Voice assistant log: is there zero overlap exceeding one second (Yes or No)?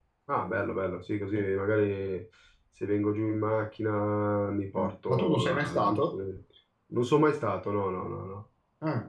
No